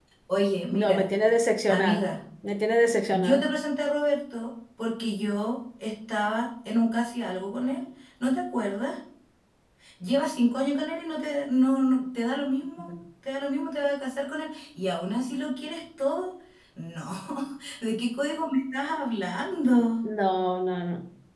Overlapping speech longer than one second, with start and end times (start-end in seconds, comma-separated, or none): none